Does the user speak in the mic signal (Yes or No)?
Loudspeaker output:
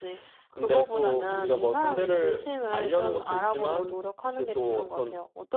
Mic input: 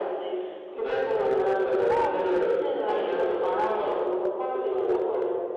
No